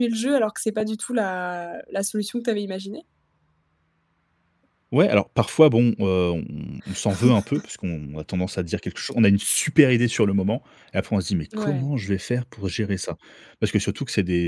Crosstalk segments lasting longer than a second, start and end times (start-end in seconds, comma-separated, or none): none